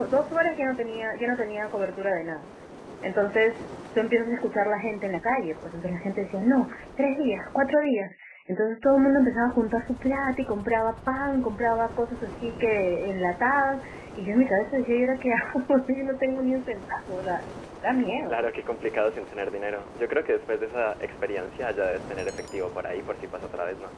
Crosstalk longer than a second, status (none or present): none